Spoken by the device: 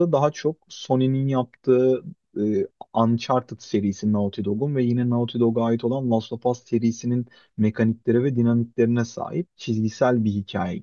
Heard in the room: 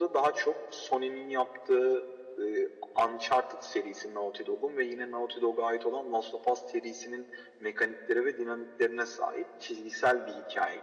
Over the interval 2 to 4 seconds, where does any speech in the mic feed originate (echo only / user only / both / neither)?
echo only